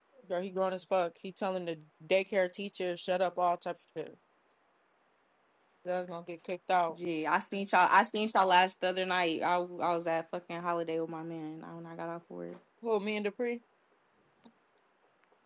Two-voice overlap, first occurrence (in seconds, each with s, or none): none